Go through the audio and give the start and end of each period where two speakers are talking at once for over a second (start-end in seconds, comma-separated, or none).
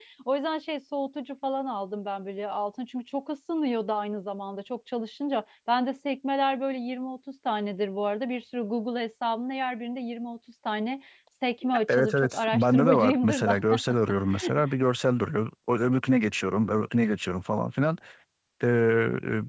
11.9-13.6